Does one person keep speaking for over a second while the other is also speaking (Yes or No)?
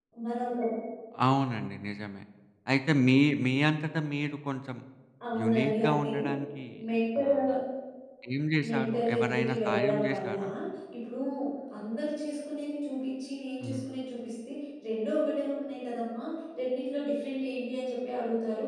Yes